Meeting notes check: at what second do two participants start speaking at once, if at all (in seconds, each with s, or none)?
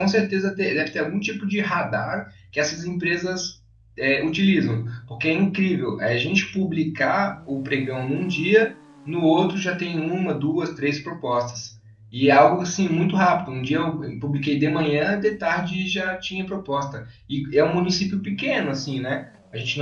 none